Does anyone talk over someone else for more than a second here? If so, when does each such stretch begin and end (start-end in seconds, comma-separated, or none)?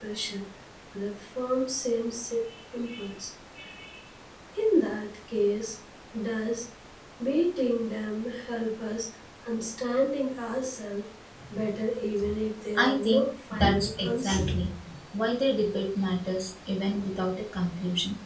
12.8-14.4